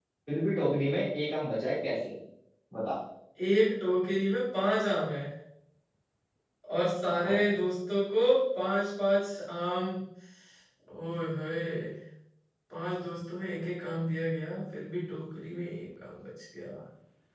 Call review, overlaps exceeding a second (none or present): none